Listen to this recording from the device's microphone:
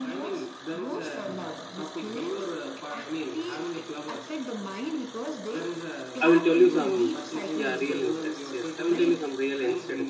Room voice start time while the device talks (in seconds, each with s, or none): 6.2 s